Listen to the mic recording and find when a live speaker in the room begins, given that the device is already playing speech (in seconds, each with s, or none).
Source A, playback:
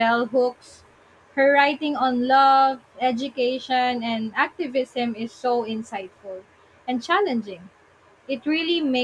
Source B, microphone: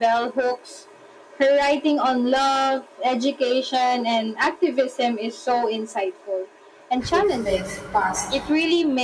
7.1 s